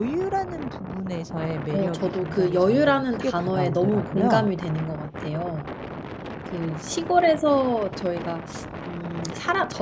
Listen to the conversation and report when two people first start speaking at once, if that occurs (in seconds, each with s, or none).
1.7 s